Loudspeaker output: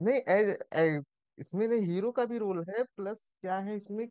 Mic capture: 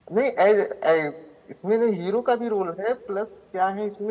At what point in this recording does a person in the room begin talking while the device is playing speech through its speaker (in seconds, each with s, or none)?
none